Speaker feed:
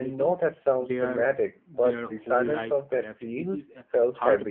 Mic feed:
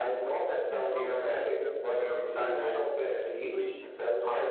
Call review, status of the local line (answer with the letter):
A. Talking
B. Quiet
A